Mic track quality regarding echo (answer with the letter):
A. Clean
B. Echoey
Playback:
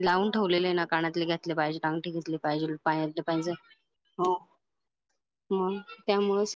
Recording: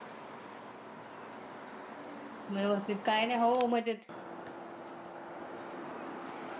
A